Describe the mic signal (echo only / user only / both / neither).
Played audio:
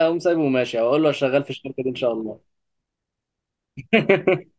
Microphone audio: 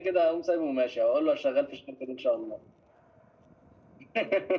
echo only